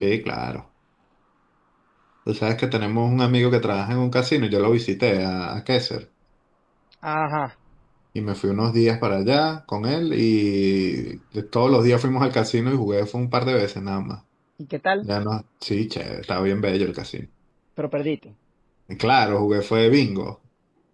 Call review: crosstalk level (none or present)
none